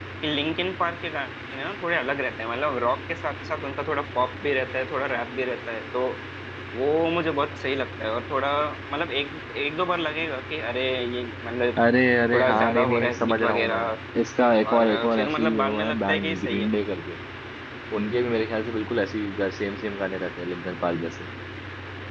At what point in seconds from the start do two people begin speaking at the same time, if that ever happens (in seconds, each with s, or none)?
12.3 s